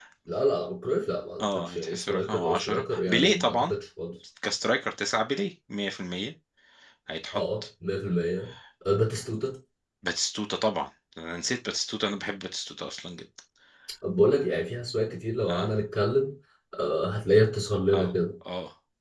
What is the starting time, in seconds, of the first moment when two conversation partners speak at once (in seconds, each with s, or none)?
1.4 s